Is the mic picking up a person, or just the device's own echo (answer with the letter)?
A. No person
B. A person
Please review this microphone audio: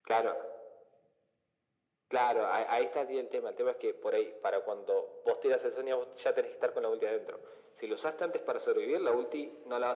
A